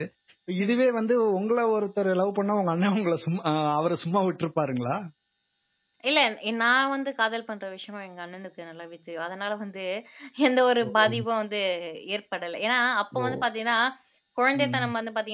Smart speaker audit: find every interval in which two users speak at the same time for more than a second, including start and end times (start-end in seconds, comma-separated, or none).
none